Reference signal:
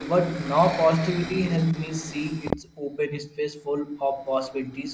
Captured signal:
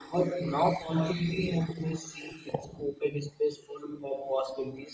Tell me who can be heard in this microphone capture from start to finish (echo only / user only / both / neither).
echo only